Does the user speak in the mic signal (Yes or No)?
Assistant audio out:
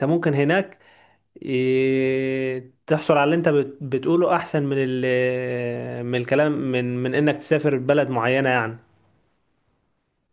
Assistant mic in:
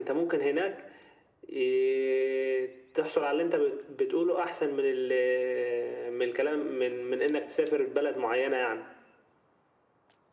No